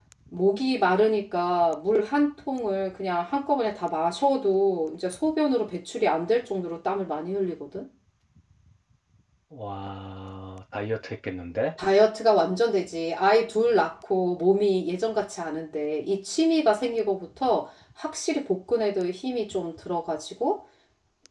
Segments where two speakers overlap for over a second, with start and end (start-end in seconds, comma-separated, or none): none